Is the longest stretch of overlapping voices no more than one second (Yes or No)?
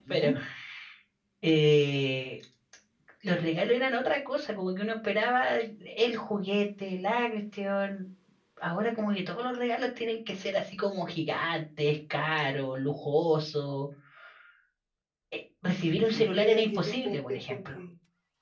No